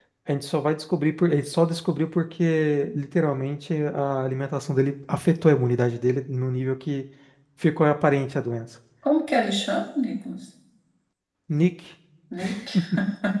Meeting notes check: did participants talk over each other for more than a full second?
No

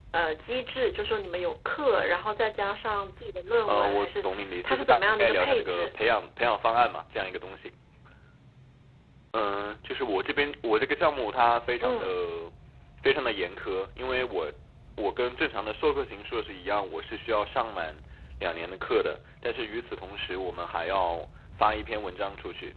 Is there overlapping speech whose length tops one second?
Yes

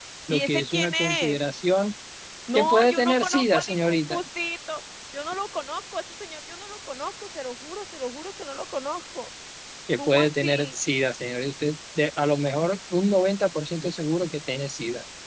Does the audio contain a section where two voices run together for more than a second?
Yes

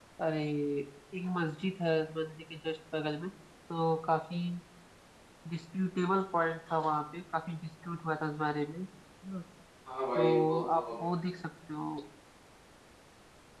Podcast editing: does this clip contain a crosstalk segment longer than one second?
Yes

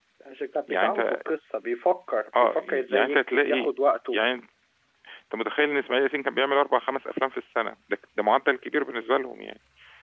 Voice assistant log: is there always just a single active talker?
No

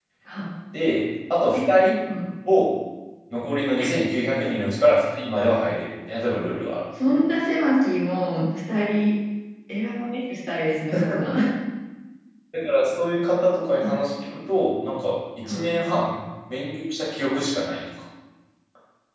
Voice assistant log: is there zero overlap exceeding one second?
Yes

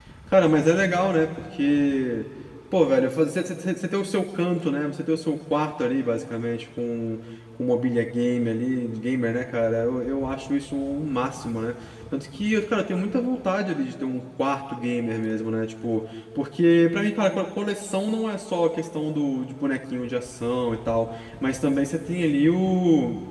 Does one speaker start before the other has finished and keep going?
No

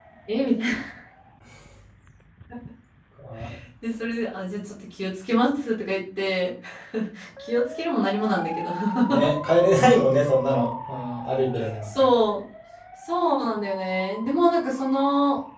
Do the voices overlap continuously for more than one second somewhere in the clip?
No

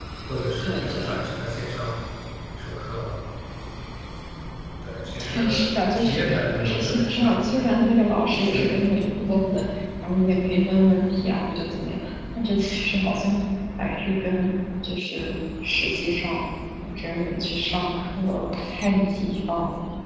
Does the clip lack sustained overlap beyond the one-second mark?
No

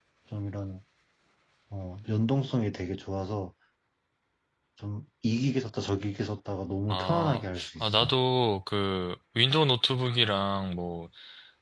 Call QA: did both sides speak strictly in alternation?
No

